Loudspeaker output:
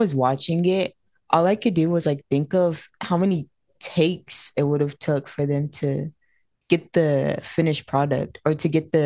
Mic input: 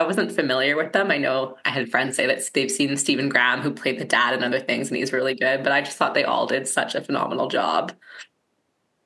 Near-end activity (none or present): present